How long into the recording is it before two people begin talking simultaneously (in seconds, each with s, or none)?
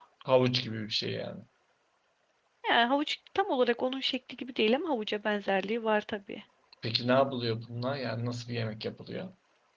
none